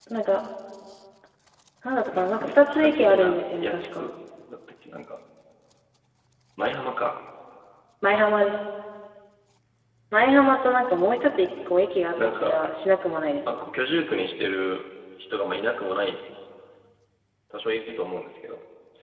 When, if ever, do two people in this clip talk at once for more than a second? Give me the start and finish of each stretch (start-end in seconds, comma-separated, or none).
2.1-3.9